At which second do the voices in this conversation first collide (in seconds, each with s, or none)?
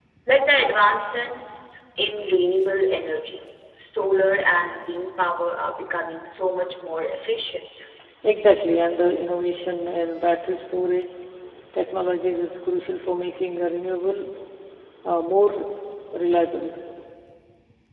none